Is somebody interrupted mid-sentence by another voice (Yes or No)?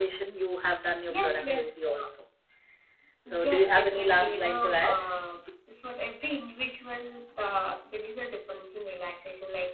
Yes